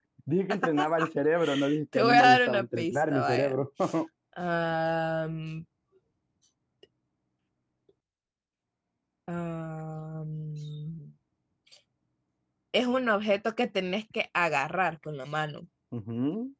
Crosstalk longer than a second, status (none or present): present